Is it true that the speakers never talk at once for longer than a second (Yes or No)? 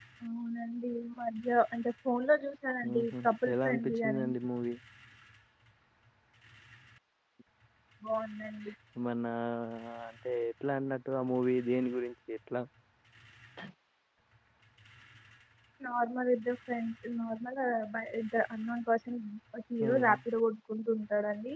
No